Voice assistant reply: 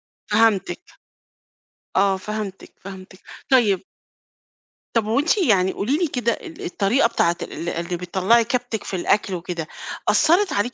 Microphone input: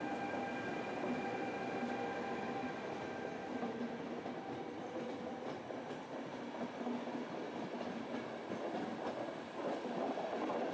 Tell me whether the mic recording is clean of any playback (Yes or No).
Yes